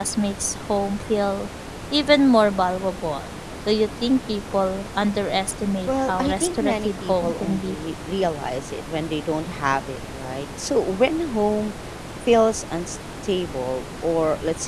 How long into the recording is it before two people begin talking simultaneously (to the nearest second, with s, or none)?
6 s